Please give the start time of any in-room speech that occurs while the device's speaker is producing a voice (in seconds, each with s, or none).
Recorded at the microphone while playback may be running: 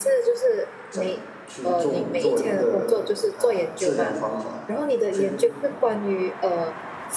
0.9 s